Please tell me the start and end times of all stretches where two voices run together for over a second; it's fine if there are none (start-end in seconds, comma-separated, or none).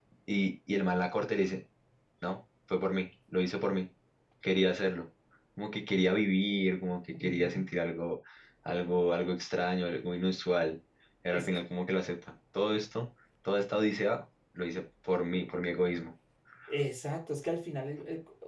none